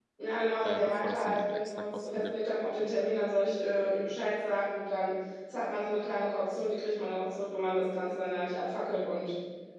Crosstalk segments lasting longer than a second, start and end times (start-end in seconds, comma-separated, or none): 0.6-2.4